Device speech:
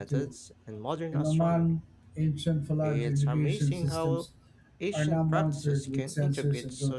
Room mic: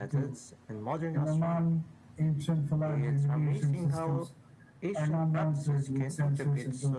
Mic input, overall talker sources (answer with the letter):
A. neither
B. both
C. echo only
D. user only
C